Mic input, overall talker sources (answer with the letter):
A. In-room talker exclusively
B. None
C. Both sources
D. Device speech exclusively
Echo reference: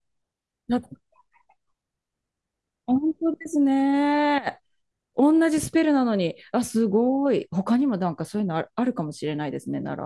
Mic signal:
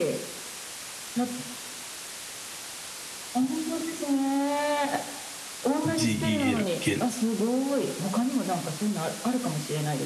C